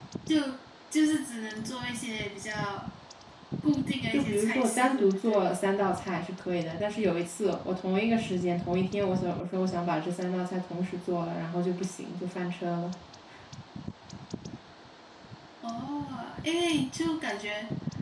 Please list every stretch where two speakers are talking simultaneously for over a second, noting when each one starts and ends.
4.1-5.5

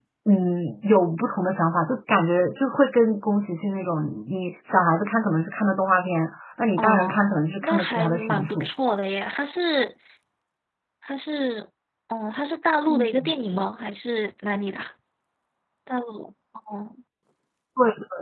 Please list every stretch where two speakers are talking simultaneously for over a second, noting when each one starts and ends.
6.8-8.7

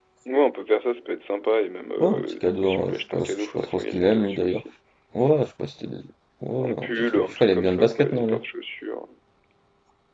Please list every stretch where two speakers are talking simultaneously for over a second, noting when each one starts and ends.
2.0-4.6, 6.6-8.4

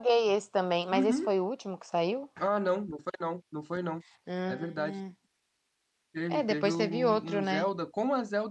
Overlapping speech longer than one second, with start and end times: 6.3-7.6

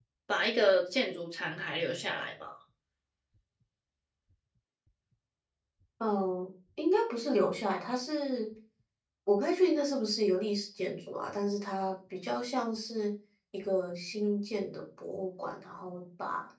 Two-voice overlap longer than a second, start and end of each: none

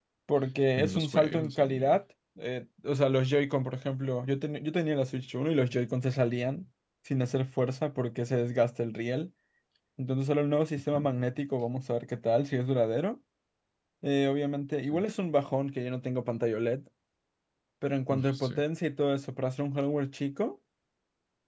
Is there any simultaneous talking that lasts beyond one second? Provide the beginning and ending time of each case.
0.8-2.0

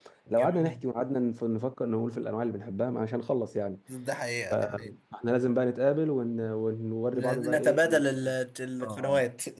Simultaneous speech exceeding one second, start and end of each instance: 7.1-8.3

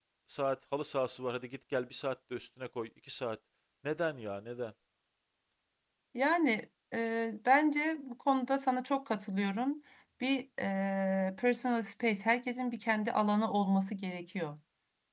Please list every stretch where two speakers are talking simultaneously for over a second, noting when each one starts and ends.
none

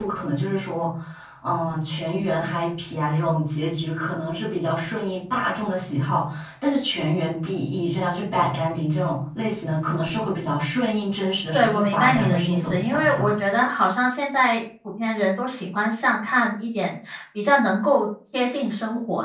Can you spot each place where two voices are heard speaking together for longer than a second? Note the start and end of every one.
11.5-13.3

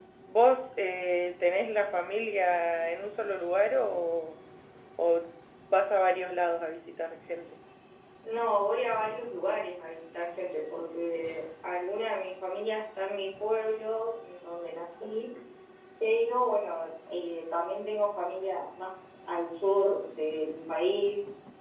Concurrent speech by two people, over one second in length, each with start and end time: none

